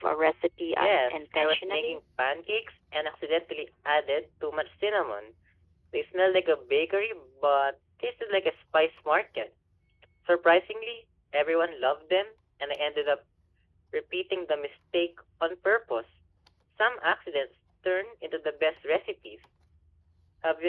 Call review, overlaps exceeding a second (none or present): present